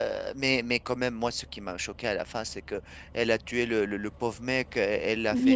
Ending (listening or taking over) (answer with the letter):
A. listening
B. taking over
A